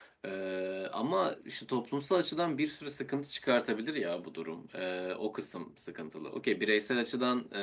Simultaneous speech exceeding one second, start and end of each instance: none

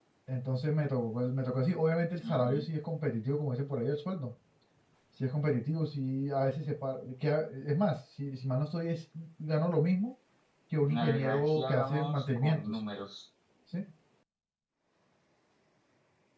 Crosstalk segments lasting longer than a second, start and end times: 10.9-12.8

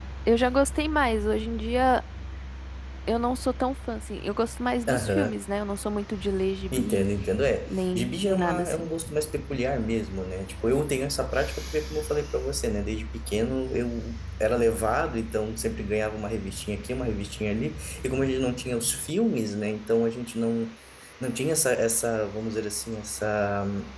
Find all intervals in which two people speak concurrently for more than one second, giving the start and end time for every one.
7.7-8.9

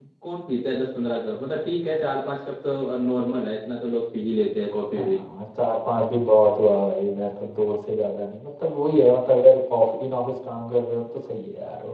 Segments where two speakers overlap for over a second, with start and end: none

